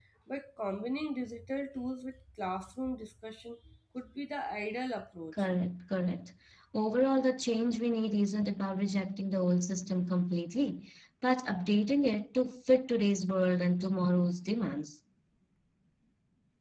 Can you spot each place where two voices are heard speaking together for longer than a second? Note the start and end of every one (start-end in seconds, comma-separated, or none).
none